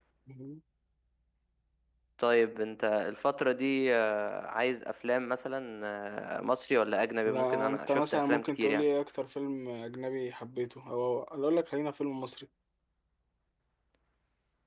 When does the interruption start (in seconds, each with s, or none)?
7.2 s